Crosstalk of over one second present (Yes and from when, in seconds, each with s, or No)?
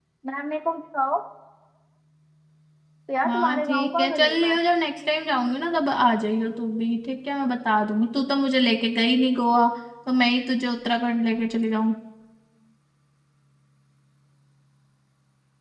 Yes, from 3.3 s